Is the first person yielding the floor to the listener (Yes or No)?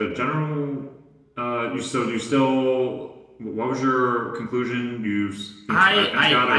Yes